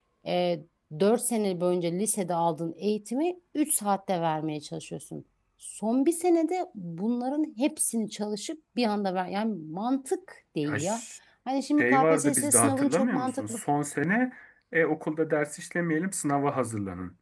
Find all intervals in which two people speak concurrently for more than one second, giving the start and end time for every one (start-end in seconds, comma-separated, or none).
11.8-13.6